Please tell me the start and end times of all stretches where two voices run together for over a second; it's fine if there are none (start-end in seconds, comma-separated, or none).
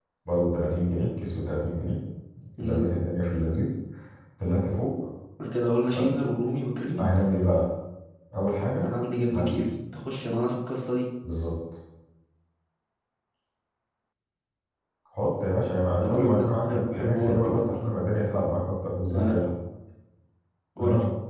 16.0-17.8